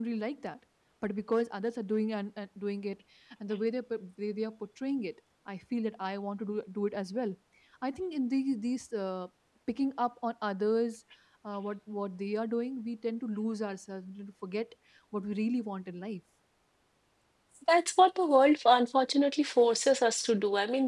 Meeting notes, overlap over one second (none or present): none